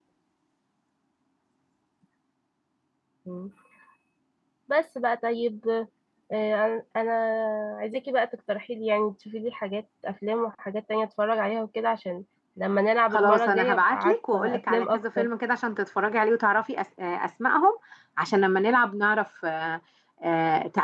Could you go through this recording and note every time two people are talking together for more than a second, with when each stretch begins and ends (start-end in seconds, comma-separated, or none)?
13.1-15.3